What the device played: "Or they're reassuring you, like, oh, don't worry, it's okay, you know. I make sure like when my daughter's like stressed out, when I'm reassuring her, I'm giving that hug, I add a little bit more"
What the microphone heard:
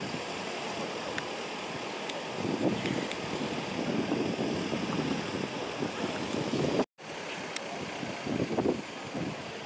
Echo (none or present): none